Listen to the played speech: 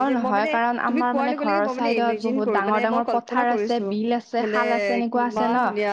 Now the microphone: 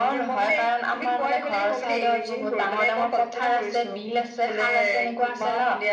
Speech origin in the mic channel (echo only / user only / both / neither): echo only